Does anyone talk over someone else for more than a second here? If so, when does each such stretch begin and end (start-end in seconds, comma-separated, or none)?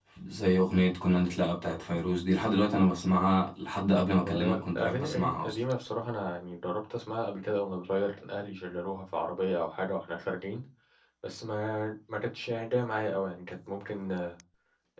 4.1-5.6